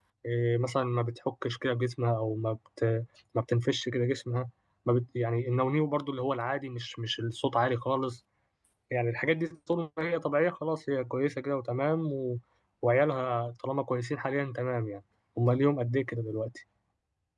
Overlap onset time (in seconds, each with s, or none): none